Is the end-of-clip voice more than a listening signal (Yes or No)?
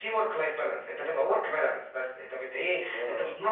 No